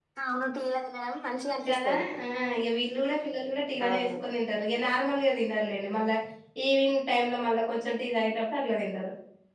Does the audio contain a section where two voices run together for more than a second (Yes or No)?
No